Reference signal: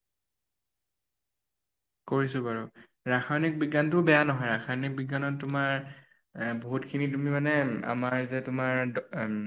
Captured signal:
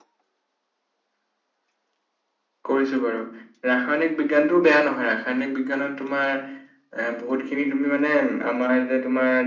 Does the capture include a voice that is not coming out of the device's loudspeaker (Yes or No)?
No